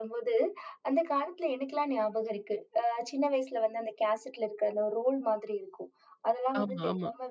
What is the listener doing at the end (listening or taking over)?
listening